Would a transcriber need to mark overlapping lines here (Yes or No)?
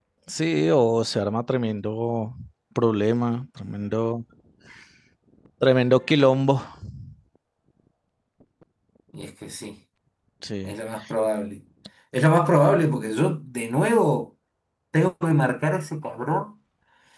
No